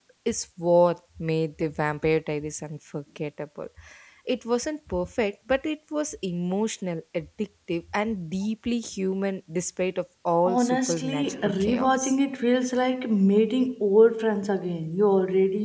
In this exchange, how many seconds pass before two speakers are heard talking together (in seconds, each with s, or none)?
10.4 s